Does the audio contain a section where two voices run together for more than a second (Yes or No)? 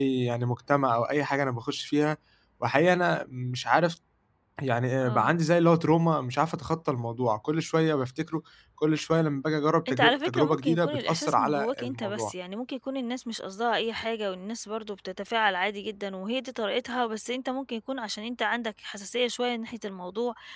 Yes